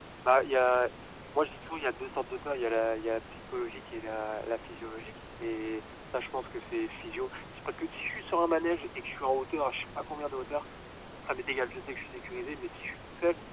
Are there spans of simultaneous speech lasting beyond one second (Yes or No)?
No